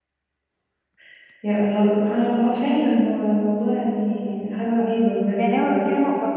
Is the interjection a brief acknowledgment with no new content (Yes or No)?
No